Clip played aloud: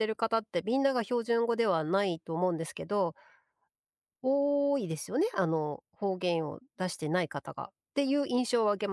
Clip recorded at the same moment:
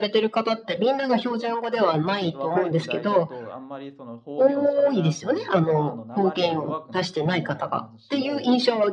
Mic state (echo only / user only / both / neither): both